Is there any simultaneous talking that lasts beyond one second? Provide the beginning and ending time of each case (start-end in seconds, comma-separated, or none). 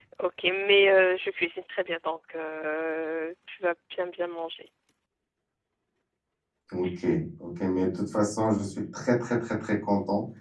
none